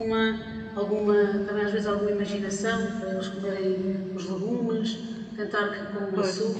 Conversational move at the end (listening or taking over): listening